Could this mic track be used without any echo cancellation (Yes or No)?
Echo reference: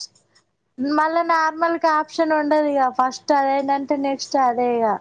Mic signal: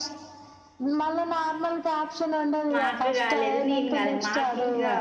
No